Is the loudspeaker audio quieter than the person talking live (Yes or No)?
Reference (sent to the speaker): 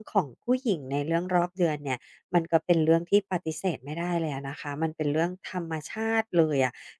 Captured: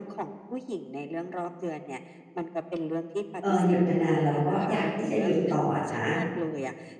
Yes